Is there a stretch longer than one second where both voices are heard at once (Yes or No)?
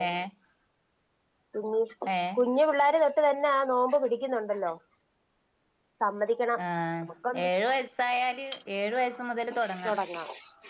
No